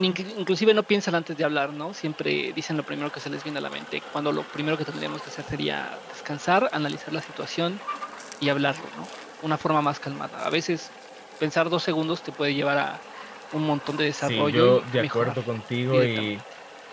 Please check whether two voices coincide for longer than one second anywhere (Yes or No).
Yes